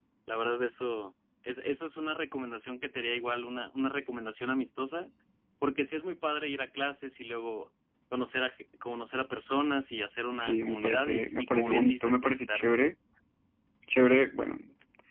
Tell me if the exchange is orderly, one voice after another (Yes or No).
No